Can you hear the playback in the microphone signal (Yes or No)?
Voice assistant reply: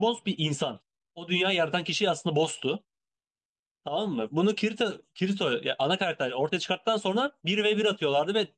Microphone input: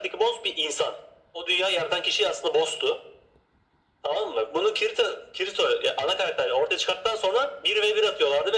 Yes